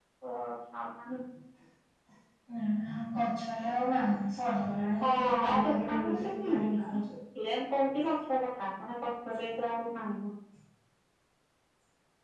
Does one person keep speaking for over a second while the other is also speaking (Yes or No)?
Yes